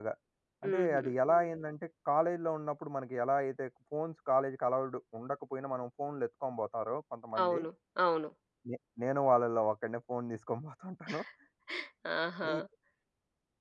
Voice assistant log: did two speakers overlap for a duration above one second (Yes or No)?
No